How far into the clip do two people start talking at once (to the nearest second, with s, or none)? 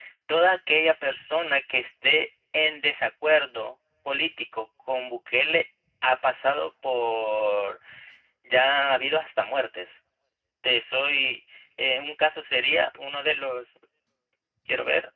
none